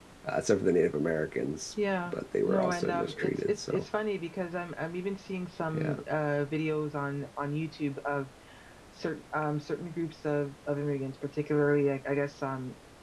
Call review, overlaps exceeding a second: present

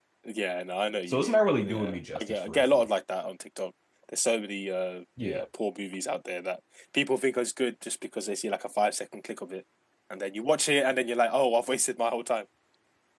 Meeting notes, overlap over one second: present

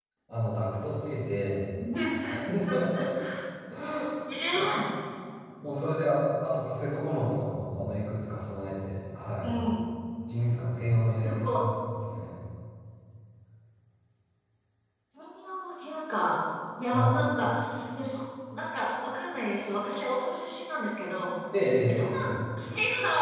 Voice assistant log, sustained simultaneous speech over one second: none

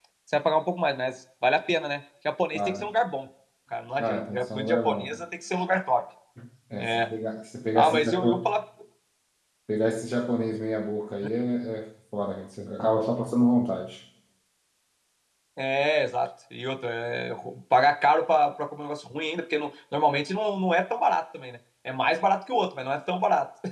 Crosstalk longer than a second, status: present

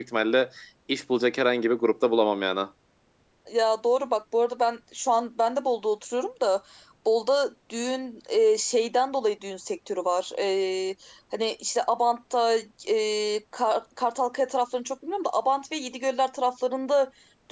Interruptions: none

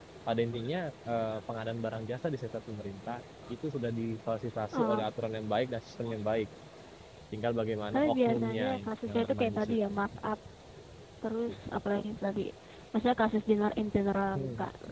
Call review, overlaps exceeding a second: present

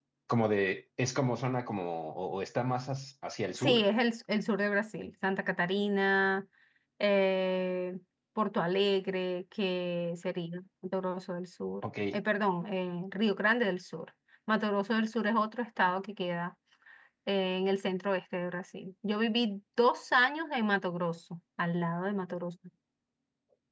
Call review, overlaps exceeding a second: none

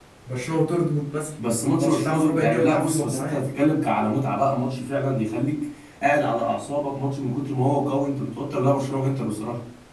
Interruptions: present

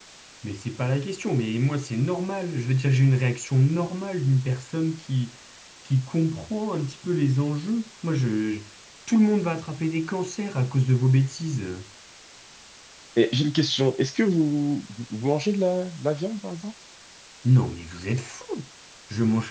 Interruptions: none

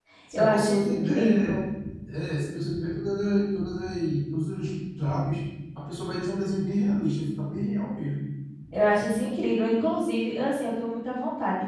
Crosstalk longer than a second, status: present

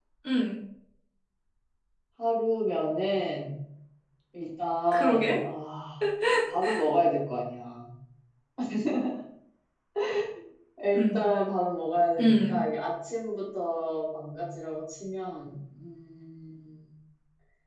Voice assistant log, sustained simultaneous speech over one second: none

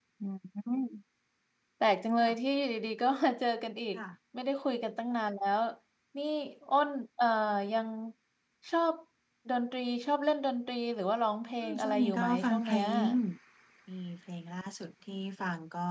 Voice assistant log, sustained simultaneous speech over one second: present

